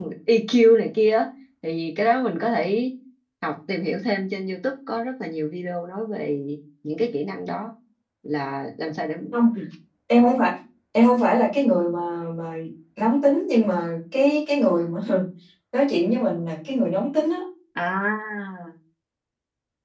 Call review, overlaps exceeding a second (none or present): none